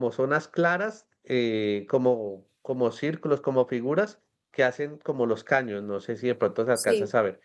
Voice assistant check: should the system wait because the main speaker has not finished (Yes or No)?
Yes